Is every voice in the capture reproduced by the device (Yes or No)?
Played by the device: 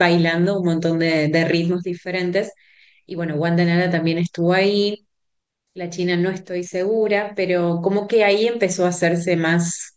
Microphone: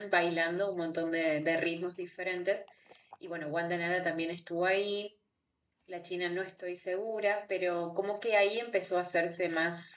Yes